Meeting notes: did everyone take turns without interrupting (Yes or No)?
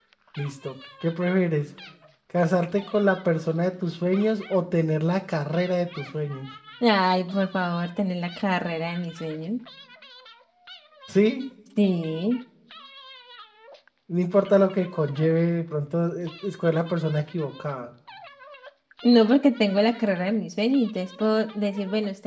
Yes